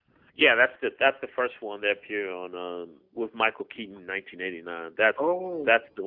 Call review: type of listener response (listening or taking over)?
listening